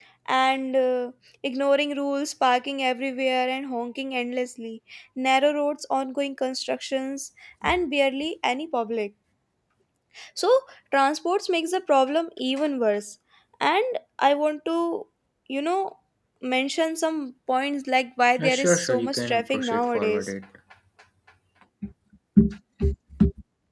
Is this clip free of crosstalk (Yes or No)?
No